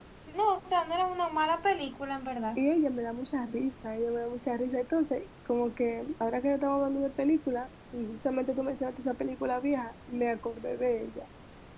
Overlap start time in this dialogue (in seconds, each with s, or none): none